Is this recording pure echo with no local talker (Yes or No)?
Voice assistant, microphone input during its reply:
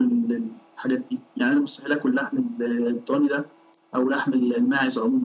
Yes